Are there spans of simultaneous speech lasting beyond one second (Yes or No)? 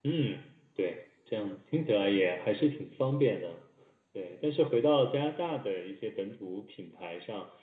No